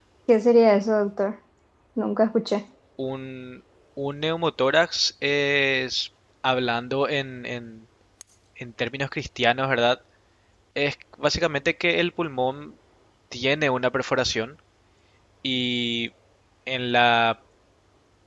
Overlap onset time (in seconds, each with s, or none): none